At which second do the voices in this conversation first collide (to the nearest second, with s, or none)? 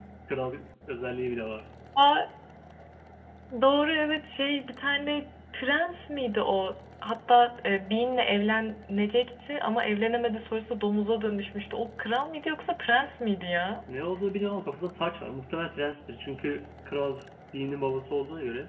none